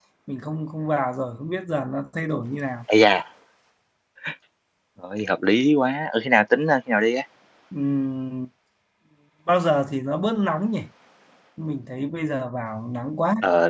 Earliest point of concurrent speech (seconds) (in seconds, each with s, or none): none